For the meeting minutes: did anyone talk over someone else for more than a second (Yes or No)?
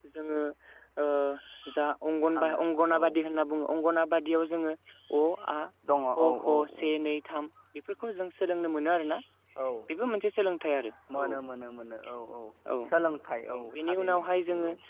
Yes